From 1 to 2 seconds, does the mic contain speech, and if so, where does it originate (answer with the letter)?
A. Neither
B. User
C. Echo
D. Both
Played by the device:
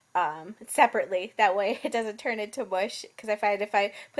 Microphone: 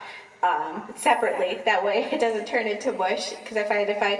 C